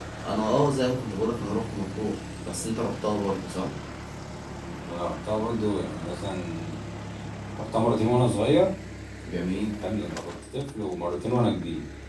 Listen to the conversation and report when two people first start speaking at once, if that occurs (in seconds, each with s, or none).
none